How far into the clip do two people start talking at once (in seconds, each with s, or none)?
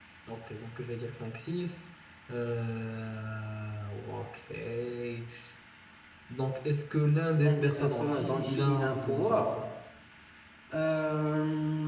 7.3 s